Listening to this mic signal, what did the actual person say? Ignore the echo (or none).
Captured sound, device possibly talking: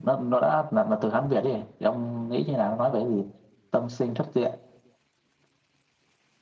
none